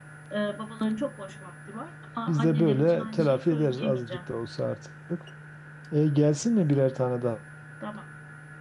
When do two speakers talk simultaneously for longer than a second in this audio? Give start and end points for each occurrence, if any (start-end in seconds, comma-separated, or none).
2.3-4.2